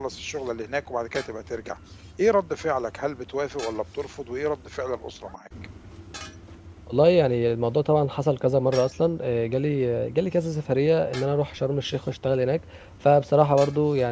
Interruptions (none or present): none